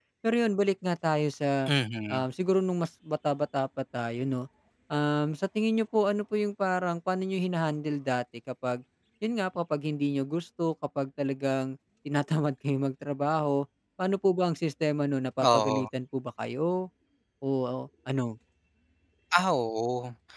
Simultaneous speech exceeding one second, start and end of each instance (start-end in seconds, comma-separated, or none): none